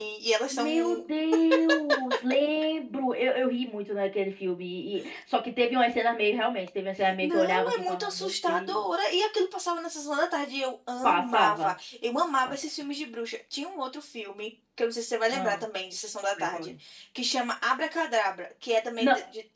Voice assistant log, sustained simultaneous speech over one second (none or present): present